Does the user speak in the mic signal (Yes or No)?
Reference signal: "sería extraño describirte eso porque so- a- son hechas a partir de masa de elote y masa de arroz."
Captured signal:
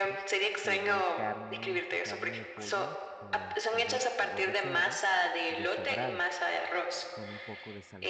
Yes